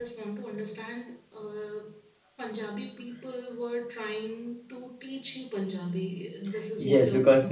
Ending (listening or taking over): taking over